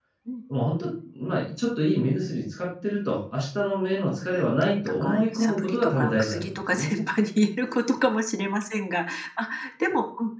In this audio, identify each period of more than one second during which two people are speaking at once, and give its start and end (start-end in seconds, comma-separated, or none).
4.1-6.9